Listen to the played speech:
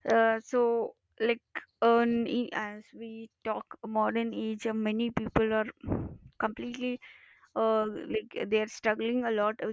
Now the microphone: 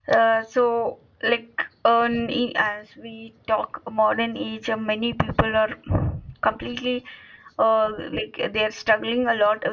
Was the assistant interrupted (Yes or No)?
No